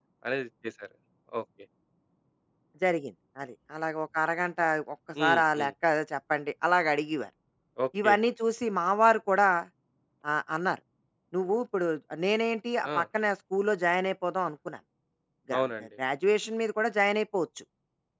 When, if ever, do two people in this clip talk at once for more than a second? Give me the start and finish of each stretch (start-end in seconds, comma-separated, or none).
none